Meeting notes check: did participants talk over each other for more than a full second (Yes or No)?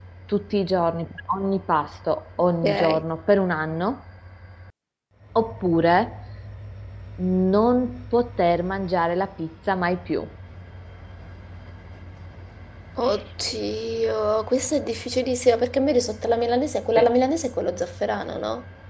No